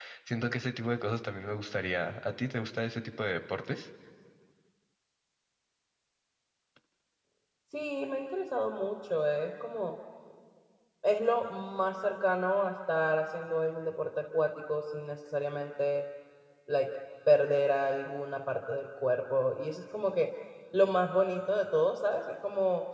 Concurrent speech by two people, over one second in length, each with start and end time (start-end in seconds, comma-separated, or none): none